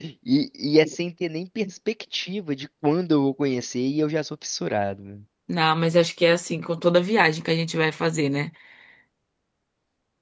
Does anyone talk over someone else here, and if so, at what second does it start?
none

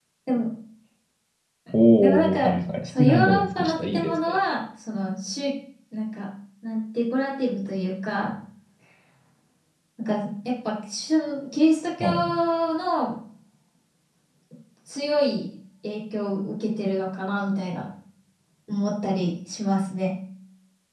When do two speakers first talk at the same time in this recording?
2.0 s

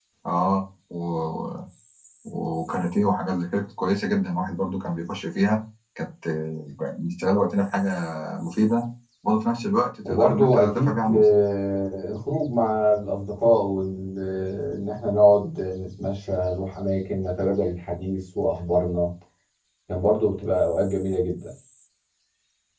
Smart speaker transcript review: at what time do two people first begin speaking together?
10.0 s

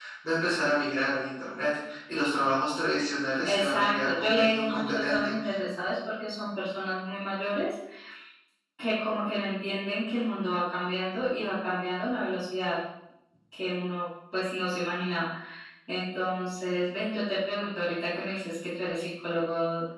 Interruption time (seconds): 3.4 s

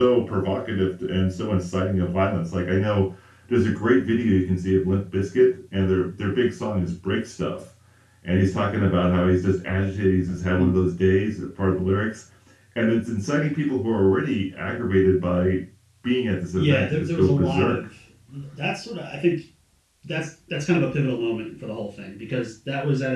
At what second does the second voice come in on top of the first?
16.6 s

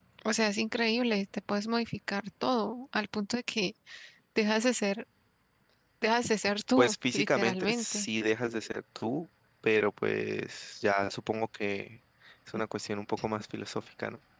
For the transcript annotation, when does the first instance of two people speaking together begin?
6.8 s

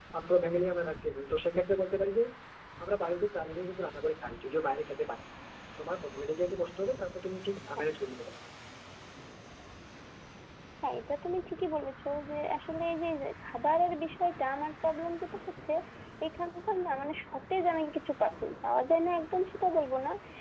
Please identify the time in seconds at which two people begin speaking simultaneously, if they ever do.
none

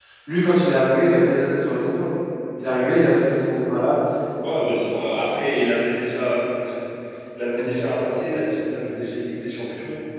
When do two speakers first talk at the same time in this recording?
none

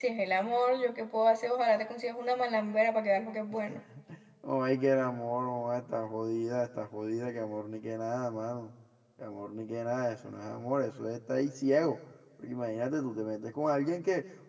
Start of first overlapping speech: none

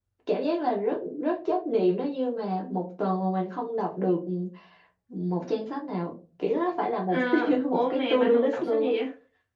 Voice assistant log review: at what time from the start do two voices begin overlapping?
7.1 s

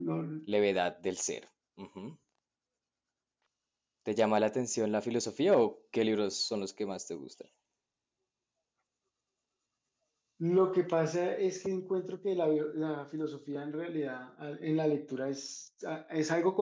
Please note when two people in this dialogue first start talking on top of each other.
none

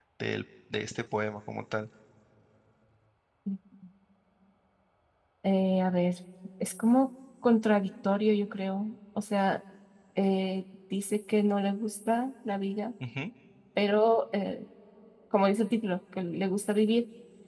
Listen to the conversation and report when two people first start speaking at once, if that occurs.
none

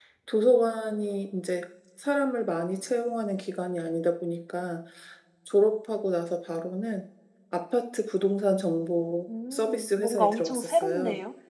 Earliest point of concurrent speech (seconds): 9.3 s

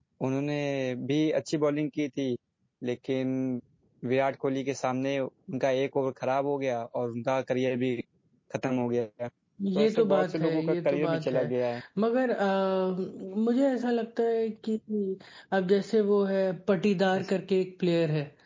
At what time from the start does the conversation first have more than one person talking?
9.6 s

